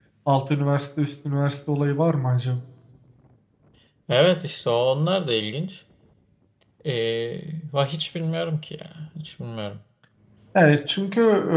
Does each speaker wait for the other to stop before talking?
Yes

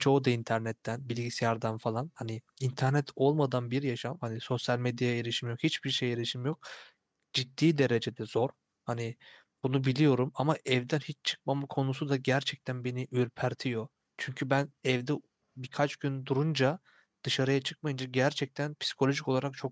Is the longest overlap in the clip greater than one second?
No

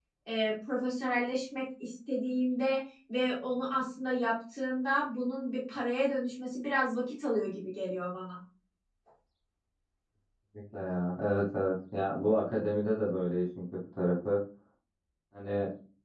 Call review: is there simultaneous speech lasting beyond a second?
No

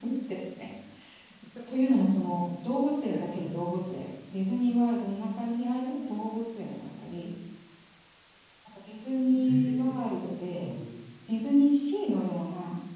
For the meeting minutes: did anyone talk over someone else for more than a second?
Yes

